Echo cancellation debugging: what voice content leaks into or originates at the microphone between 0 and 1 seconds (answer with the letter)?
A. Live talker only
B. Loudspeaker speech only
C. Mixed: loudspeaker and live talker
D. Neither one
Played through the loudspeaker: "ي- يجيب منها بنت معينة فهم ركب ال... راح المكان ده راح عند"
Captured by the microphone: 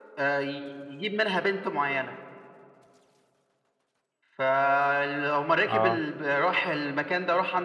B